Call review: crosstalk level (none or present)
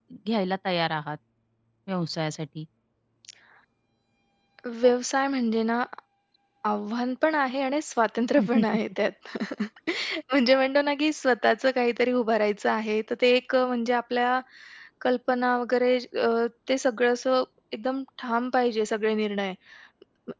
none